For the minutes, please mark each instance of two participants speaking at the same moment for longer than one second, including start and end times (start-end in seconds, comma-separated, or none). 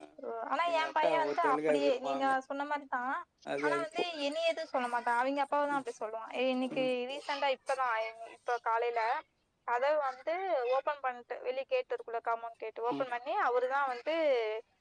0.7-2.4